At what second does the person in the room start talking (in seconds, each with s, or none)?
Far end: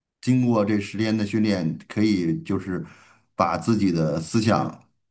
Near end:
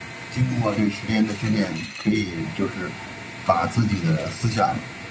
none